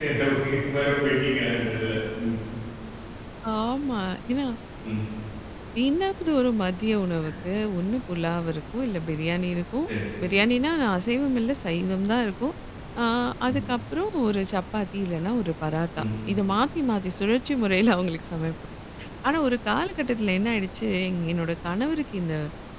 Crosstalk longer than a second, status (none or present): none